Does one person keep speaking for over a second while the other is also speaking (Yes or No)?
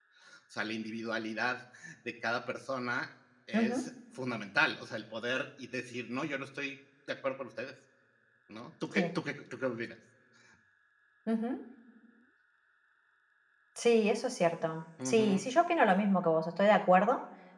No